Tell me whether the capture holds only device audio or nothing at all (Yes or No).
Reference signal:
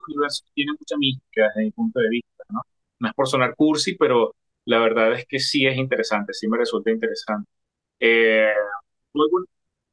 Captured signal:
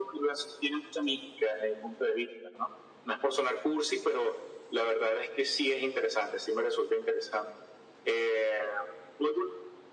Yes